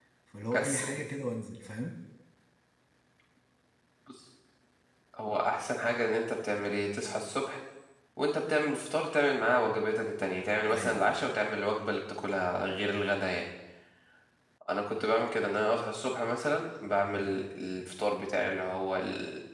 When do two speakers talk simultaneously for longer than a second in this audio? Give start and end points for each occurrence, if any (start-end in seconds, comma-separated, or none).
none